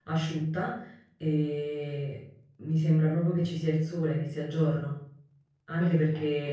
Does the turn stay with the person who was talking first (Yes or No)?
Yes